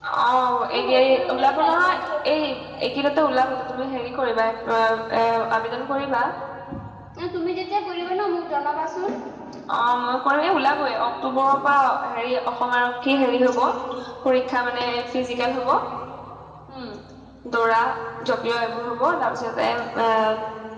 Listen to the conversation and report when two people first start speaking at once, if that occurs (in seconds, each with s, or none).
0.8 s